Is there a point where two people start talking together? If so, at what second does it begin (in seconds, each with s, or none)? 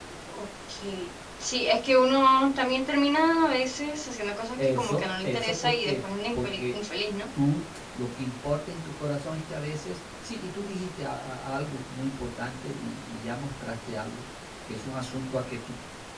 4.6 s